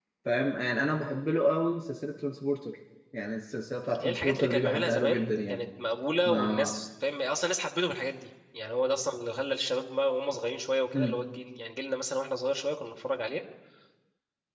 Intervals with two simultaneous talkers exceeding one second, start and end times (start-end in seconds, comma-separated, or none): 4.0-5.6